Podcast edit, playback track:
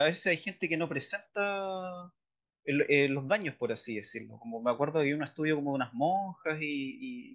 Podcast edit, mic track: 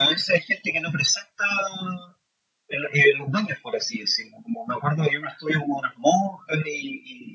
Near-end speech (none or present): none